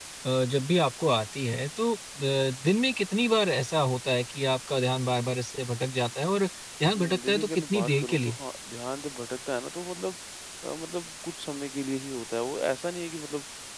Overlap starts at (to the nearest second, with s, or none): 7 s